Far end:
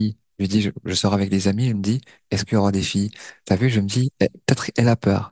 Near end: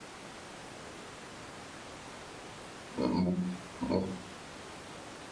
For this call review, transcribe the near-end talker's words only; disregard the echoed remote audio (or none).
Euh, Ouais,